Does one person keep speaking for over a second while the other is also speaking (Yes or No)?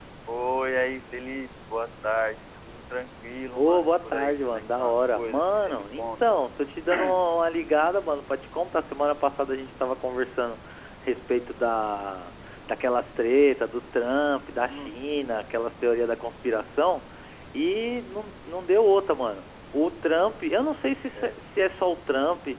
Yes